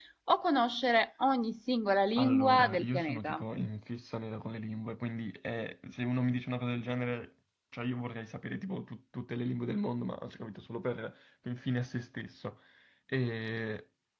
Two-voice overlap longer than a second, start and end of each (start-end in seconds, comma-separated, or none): 2.2-3.4